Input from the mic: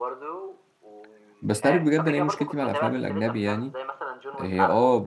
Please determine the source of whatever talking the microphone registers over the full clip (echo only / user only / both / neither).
both